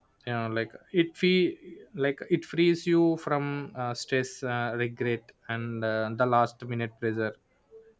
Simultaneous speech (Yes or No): No